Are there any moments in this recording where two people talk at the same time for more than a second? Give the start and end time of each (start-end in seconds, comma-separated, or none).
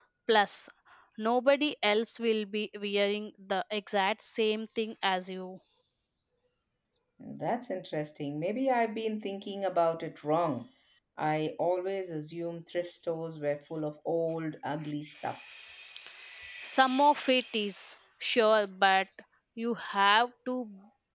none